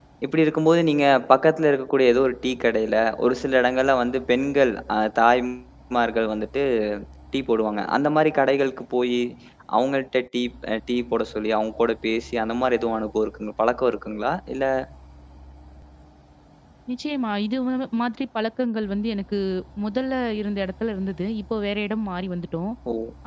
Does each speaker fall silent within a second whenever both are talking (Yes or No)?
Yes